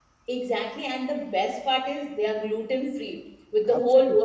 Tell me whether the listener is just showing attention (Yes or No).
Yes